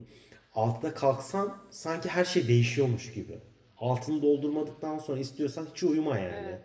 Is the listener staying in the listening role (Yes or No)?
Yes